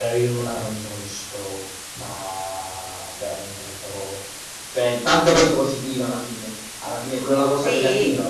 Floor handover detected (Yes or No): No